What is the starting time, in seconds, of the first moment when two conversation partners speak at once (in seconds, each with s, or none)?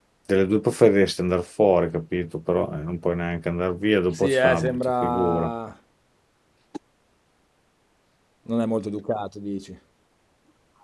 4.2 s